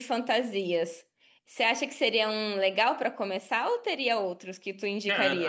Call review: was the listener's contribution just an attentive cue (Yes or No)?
No